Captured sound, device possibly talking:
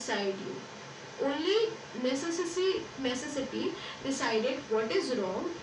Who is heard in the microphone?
echo only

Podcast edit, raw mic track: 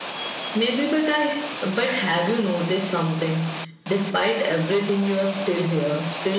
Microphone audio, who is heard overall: echo only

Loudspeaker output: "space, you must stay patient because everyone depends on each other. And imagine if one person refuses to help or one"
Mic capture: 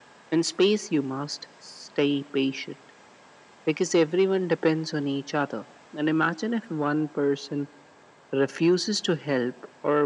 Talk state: echo only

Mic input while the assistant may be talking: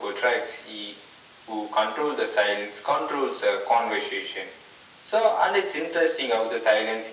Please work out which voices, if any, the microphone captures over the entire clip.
echo only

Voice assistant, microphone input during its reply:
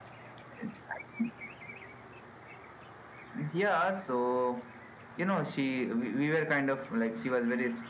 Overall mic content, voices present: echo only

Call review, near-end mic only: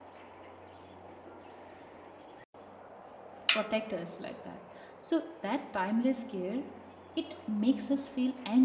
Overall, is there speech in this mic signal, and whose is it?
user only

